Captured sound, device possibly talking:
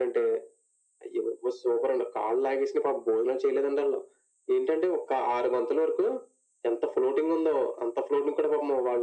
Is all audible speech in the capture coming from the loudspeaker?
Yes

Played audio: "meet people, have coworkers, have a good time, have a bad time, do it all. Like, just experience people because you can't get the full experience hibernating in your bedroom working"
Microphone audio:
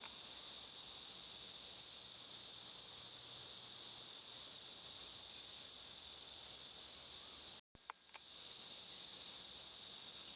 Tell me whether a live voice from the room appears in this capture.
No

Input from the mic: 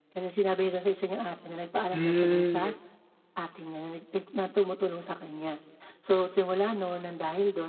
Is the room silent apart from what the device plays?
No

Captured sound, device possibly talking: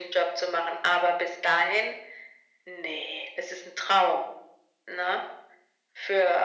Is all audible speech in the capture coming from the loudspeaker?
Yes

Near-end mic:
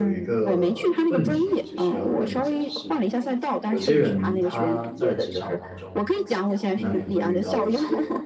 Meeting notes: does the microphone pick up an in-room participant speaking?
Yes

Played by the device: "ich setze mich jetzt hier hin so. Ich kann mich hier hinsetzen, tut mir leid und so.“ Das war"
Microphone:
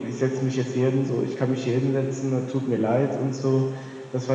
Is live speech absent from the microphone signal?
Yes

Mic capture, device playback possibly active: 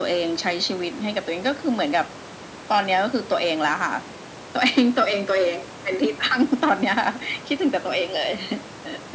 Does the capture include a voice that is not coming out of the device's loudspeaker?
No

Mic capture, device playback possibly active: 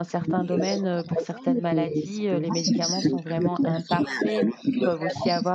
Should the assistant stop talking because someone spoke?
Yes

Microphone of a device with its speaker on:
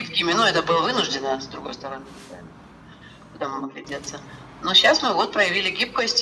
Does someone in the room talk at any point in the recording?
No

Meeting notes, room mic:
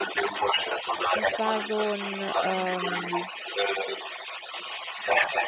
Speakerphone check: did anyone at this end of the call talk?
Yes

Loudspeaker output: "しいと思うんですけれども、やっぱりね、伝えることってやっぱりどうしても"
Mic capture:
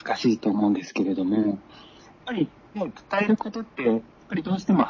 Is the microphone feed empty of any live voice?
Yes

